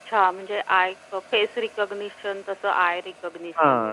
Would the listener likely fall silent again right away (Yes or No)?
No